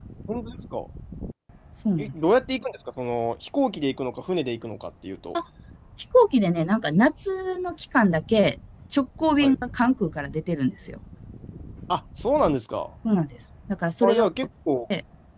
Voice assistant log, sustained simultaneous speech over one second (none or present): none